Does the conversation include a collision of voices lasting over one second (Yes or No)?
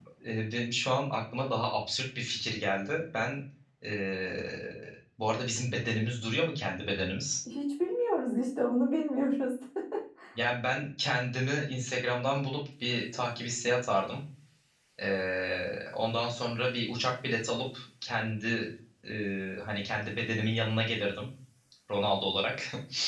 No